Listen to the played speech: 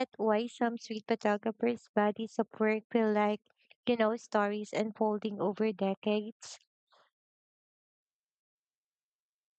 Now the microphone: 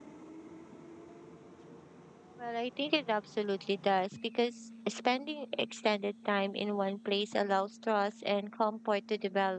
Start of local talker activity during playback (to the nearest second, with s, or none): 2 s